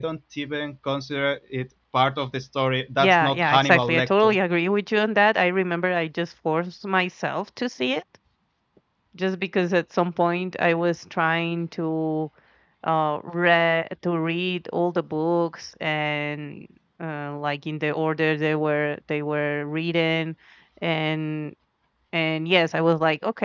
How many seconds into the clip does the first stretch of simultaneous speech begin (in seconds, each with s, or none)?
3.0 s